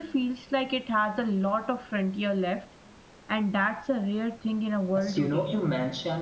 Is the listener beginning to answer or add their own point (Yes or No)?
Yes